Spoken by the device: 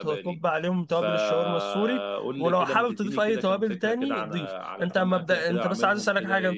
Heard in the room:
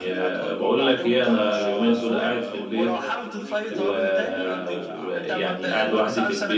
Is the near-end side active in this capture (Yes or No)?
Yes